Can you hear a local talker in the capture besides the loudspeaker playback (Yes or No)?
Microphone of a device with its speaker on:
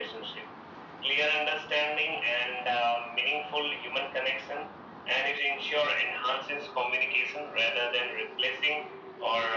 No